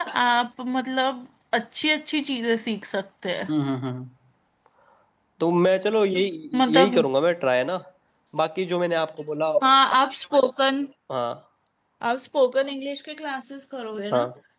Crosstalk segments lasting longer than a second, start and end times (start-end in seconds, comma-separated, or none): none